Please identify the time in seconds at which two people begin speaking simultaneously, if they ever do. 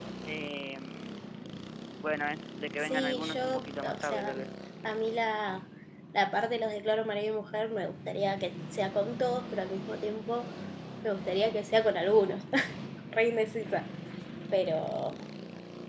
3 s

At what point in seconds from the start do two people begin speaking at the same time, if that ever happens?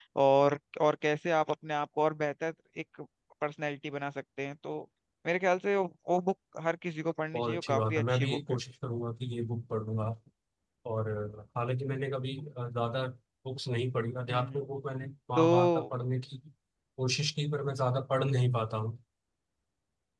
7 s

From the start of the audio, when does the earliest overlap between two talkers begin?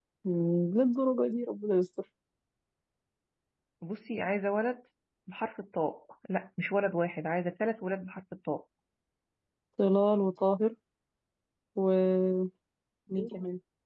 none

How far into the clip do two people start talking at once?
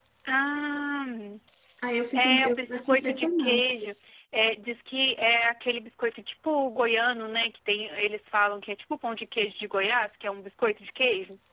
2 s

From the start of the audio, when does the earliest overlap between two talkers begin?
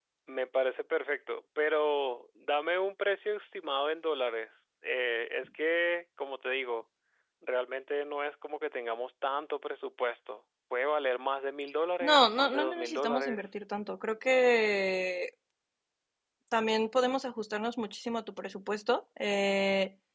12 s

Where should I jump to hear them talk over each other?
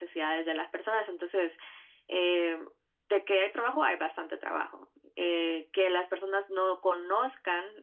none

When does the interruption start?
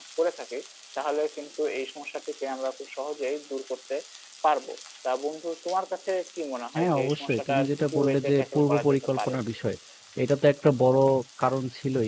7 s

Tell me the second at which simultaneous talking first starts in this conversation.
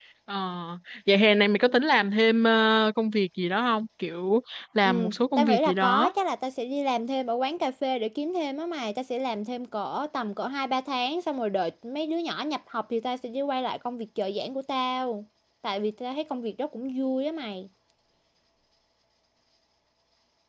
5 s

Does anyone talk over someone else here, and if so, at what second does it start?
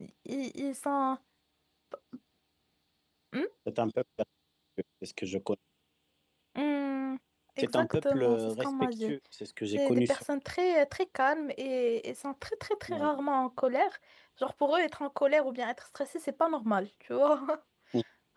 8 s

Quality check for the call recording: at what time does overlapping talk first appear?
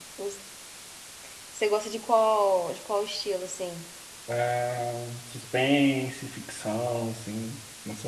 none

